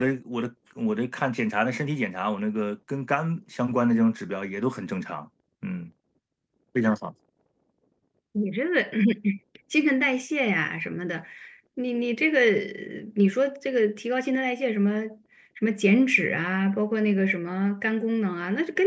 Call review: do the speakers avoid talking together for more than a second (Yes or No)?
Yes